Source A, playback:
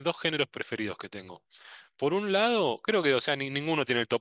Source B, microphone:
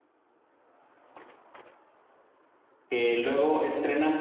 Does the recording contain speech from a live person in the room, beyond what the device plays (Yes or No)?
Yes